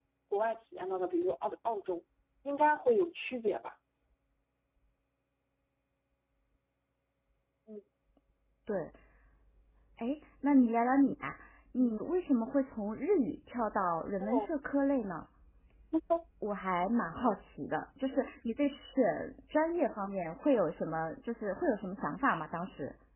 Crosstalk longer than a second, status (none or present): none